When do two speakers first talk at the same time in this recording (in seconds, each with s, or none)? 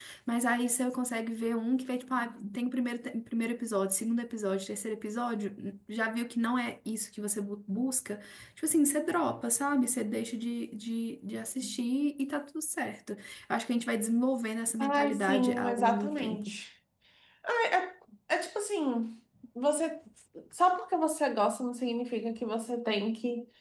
14.8 s